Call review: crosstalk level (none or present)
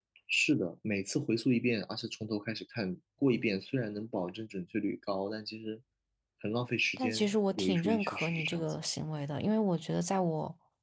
present